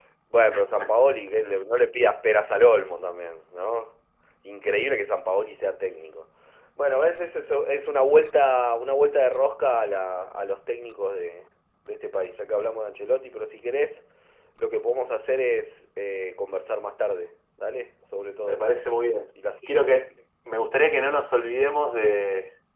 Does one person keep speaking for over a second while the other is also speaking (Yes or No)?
No